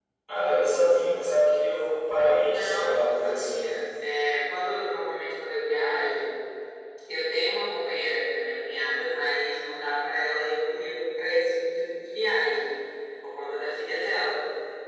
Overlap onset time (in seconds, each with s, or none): 2.3 s